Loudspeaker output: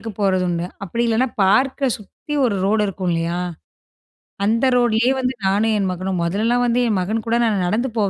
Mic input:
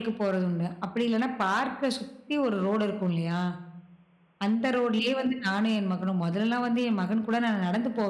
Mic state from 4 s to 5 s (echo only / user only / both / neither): echo only